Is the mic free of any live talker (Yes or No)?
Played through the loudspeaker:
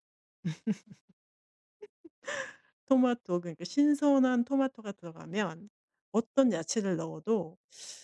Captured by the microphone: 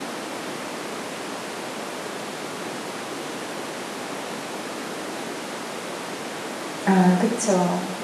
No